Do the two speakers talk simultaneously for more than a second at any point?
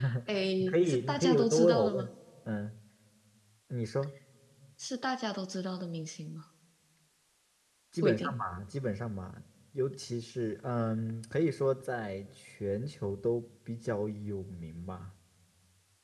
Yes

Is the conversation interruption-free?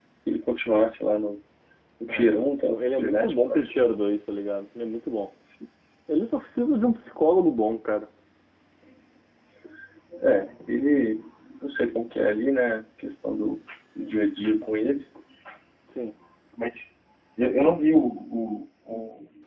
No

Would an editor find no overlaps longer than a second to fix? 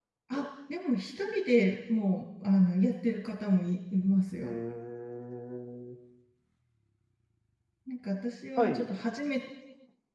Yes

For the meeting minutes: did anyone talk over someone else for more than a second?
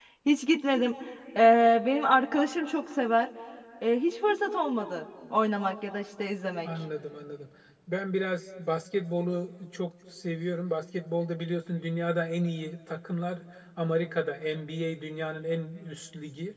No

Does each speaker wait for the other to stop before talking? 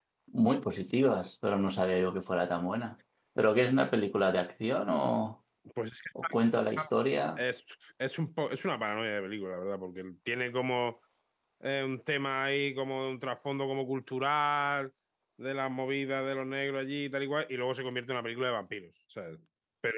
Yes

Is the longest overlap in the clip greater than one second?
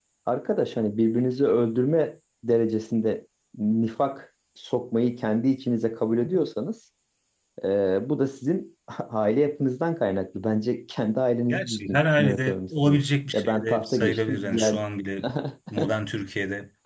Yes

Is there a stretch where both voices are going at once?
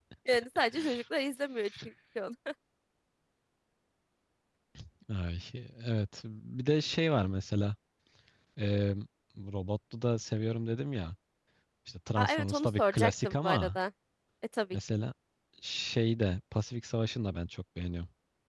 Yes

